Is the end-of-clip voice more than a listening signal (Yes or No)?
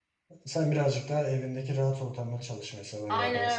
Yes